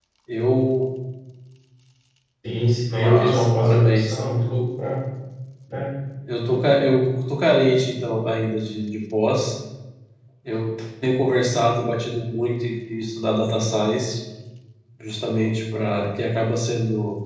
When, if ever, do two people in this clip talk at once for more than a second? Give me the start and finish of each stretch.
2.9-4.2

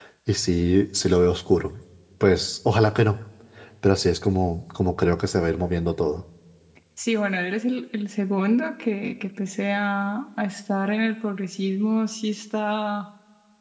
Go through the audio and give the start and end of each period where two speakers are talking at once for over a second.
none

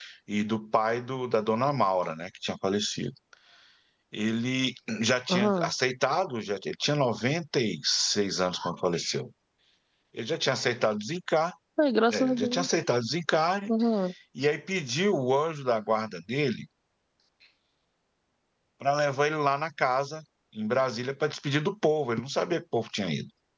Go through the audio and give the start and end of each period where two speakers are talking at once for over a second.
none

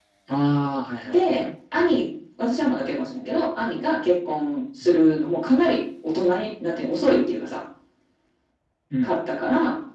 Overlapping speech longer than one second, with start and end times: none

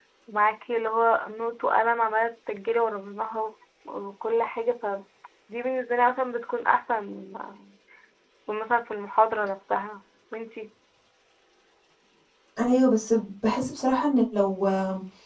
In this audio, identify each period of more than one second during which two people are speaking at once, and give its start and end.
none

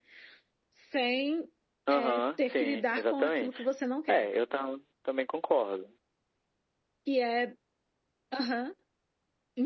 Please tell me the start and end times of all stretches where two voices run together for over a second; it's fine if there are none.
1.9-3.6

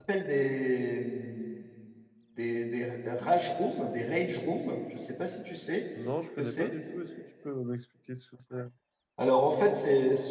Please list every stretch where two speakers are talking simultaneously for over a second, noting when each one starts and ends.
none

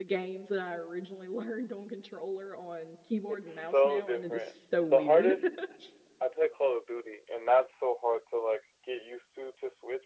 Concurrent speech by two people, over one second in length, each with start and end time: 3.3-5.3

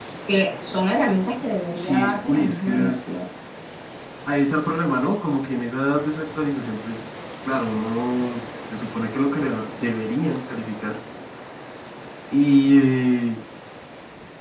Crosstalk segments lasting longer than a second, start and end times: 1.7-3.0

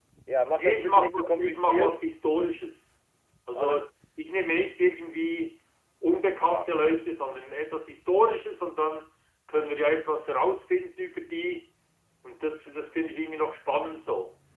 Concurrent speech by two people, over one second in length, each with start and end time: 0.6-2.0

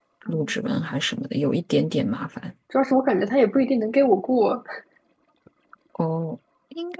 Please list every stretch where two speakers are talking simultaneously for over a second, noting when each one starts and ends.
none

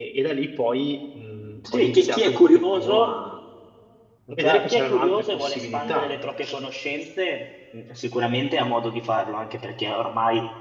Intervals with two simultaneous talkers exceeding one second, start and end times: 1.7-3.1, 4.4-6.1

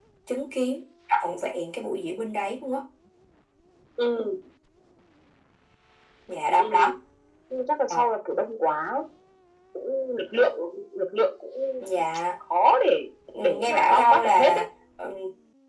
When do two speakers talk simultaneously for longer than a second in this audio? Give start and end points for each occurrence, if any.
13.4-14.6

